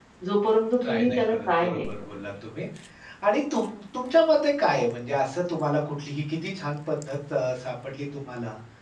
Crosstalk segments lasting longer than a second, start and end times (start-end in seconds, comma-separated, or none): 0.8-2.2